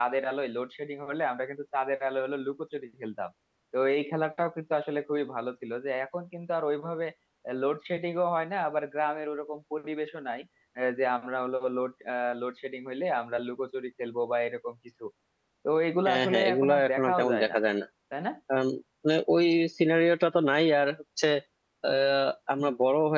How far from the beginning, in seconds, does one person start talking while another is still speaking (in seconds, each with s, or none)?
16.1 s